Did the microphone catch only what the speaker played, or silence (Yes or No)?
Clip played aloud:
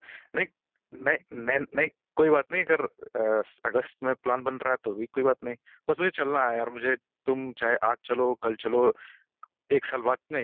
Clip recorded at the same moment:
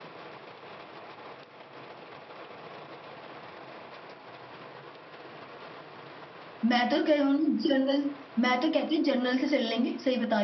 No